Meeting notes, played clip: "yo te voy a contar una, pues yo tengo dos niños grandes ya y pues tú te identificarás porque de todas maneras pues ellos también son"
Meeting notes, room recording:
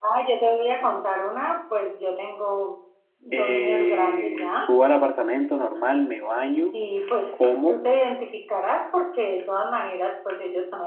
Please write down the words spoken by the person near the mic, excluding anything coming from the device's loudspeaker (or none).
eh, subo al apartamento normal, me baño, como